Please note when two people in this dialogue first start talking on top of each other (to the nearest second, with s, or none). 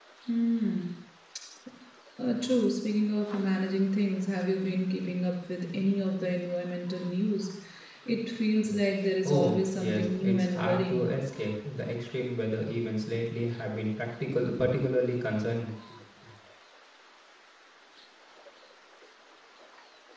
9 s